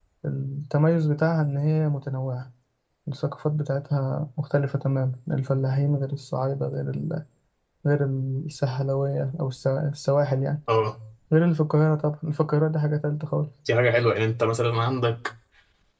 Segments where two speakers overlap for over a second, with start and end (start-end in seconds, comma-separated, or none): none